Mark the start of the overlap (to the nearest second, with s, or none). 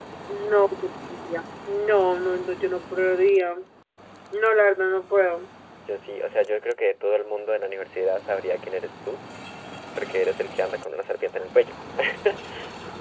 none